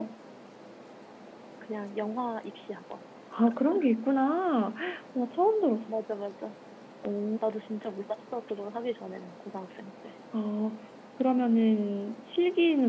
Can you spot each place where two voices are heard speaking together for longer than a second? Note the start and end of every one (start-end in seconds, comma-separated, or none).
none